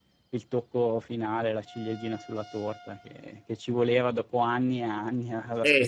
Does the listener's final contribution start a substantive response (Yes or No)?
Yes